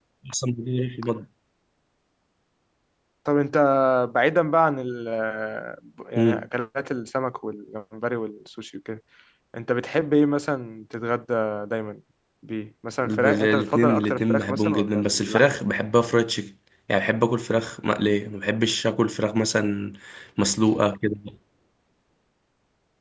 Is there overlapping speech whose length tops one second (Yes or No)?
Yes